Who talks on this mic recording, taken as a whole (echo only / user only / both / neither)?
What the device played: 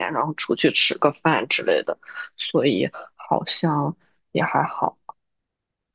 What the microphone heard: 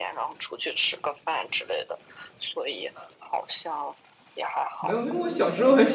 both